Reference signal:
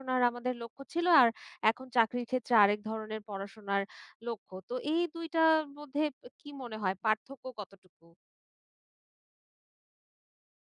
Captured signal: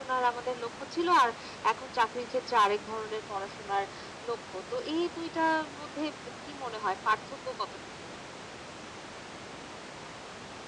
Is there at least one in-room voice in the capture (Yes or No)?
No